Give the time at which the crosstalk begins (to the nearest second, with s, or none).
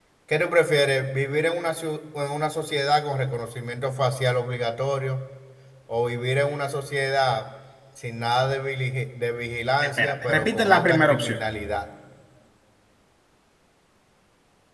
10 s